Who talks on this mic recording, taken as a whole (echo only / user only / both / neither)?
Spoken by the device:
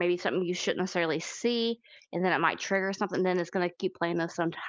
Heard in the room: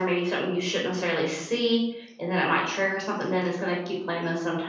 echo only